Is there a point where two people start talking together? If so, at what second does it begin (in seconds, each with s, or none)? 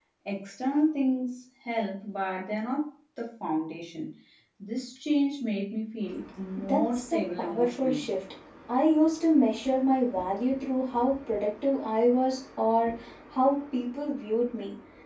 6.6 s